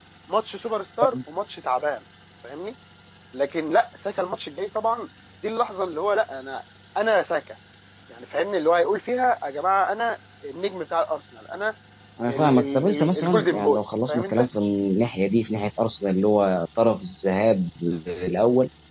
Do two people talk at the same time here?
Yes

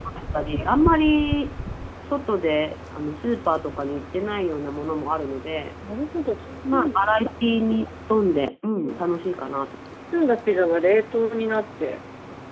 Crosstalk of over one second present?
No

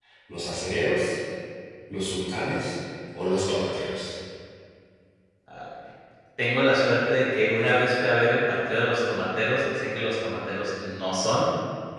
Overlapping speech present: No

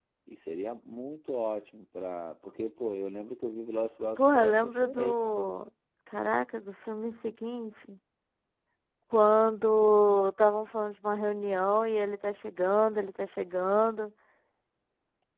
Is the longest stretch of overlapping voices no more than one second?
No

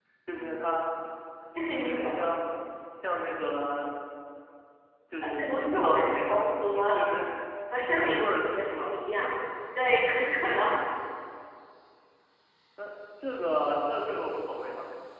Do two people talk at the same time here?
Yes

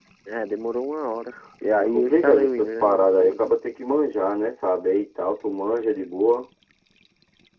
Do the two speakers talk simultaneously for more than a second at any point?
Yes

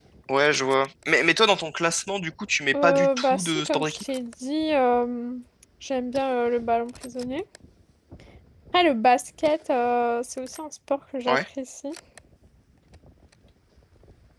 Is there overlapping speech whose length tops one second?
Yes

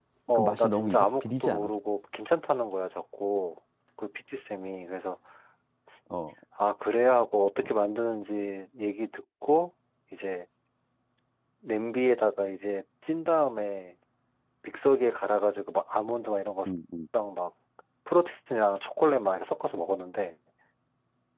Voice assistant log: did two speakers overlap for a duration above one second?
Yes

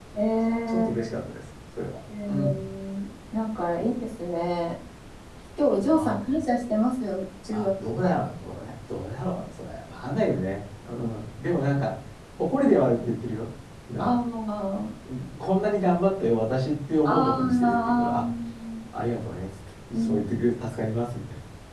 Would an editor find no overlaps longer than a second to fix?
No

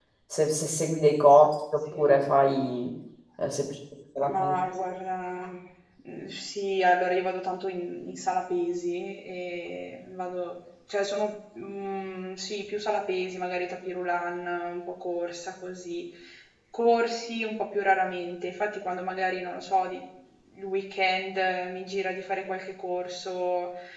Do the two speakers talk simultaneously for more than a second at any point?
No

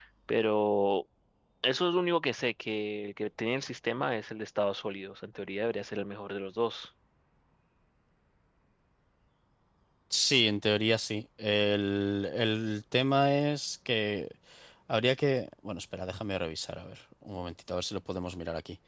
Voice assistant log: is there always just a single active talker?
Yes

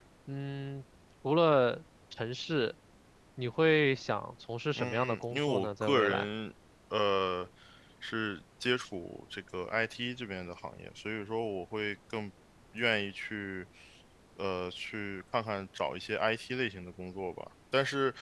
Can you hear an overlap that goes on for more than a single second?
Yes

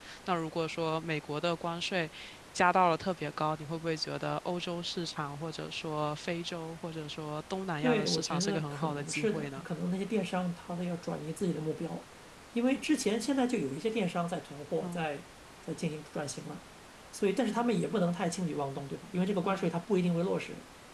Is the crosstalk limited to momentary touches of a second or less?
No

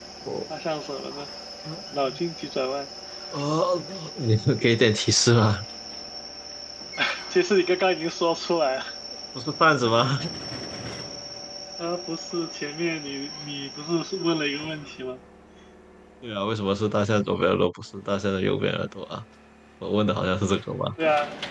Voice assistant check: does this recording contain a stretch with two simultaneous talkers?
No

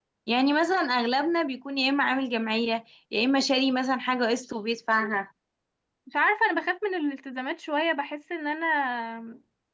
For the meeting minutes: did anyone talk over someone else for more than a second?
No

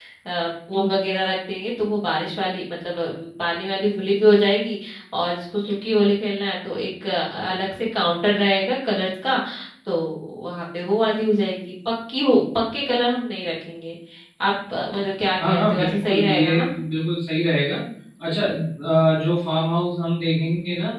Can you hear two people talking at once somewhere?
Yes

